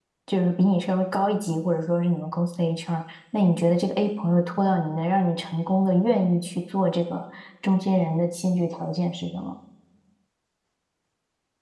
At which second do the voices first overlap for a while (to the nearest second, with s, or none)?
none